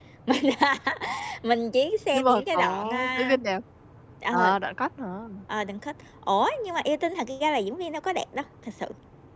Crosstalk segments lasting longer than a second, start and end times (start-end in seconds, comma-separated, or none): 2.1-3.4